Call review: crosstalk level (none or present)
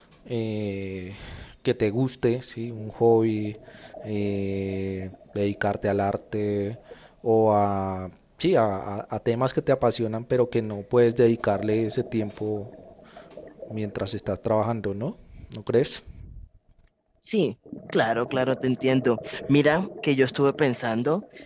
none